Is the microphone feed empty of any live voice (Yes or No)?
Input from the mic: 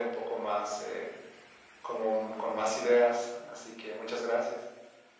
Yes